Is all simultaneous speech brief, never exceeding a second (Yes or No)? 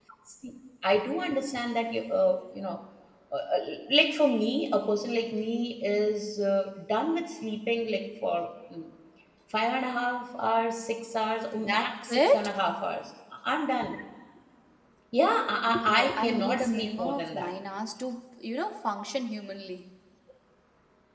No